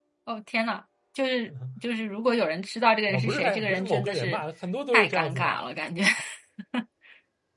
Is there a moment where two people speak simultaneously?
Yes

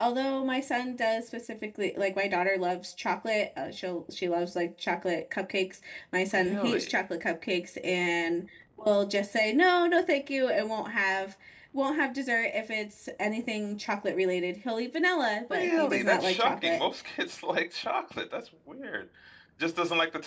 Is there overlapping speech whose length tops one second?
Yes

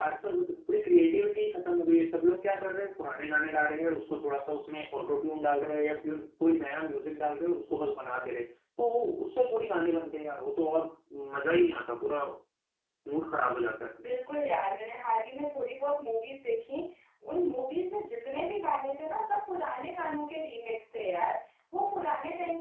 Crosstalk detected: No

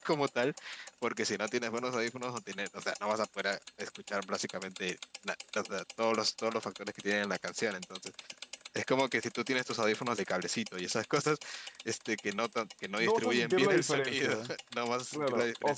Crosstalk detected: Yes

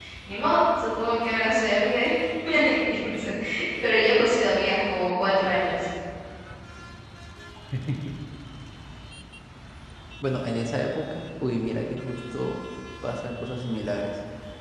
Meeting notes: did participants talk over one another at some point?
No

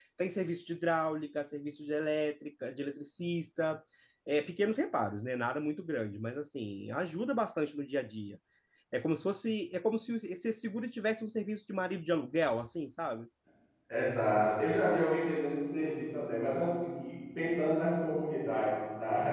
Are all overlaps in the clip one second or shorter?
Yes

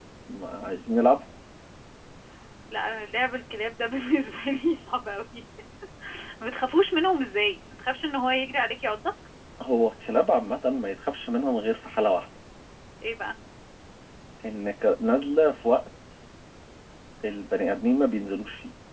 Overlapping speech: No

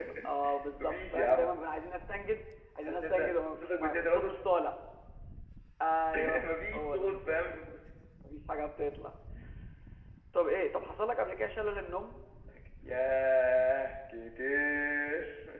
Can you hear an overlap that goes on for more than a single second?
Yes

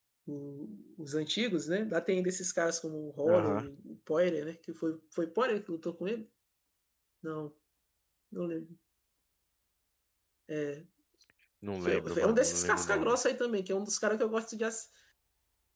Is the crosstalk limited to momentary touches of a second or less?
No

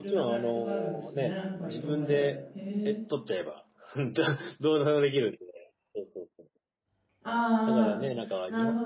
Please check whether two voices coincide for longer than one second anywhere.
Yes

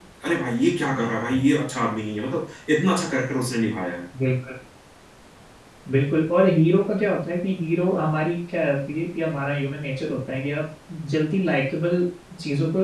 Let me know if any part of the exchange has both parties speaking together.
No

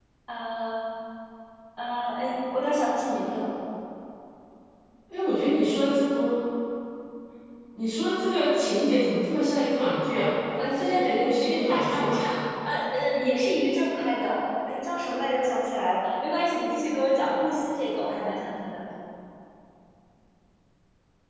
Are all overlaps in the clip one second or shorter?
No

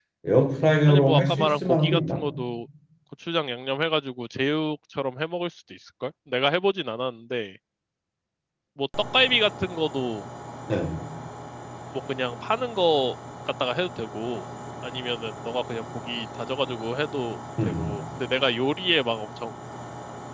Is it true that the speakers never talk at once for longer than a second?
No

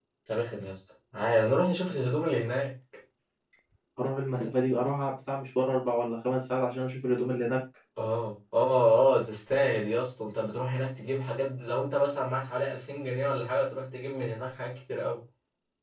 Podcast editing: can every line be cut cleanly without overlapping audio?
Yes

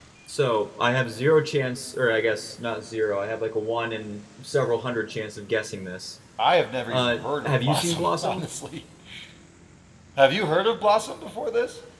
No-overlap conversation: No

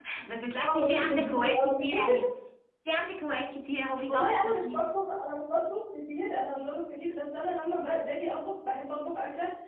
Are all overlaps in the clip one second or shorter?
No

